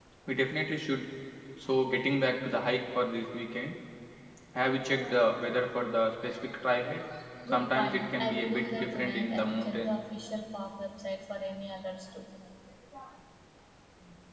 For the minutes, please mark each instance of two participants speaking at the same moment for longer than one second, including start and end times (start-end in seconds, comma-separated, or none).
7.5-10.0